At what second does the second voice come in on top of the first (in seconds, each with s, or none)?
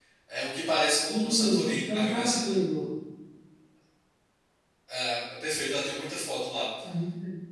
1.1 s